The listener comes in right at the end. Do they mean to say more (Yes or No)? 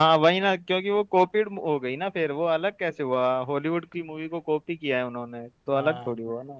Yes